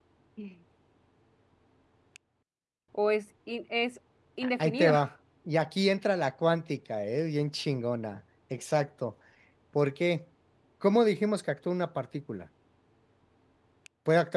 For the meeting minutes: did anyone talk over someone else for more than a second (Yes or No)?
No